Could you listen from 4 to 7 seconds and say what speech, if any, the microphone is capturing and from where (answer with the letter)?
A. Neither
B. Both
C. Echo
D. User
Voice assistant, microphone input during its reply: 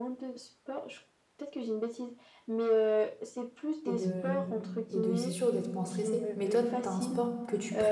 B